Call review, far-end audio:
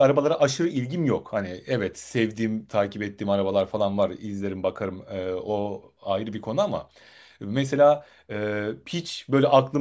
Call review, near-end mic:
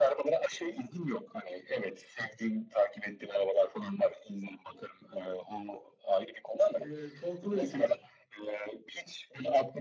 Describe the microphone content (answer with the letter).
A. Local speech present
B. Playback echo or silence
A